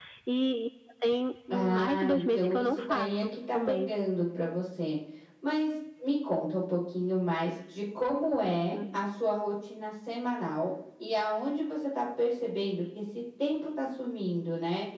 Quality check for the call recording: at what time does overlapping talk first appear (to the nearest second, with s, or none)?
2 s